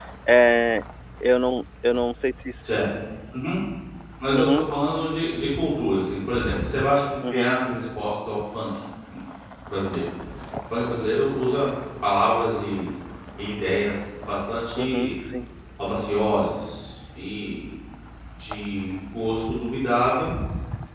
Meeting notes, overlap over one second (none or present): none